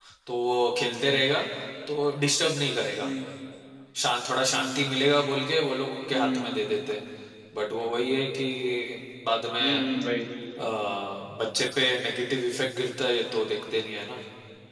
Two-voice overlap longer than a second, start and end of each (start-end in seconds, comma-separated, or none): none